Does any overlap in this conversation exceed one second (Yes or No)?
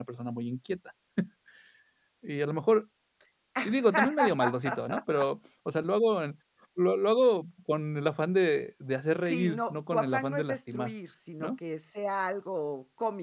Yes